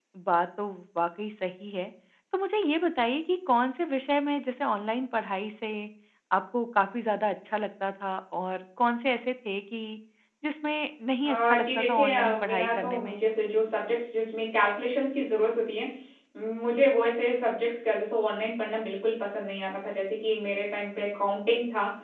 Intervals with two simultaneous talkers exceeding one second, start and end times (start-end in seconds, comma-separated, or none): 11.2-13.2